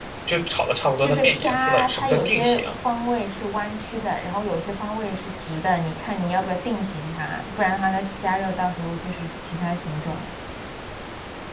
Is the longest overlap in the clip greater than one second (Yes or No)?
Yes